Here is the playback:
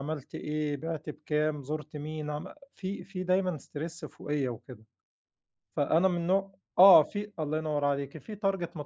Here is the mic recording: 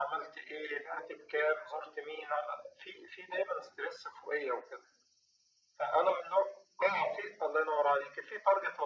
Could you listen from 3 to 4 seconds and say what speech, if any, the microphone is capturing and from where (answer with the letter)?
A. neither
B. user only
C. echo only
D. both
C